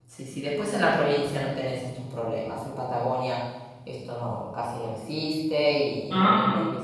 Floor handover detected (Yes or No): No